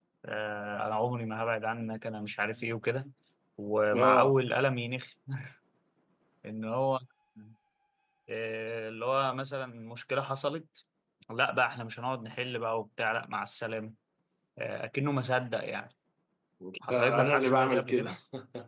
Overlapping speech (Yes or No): Yes